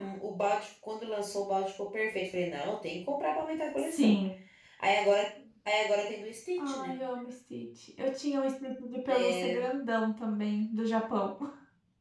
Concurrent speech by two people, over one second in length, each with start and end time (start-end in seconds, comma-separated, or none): none